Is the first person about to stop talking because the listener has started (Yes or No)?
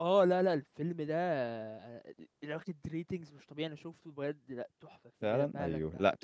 Yes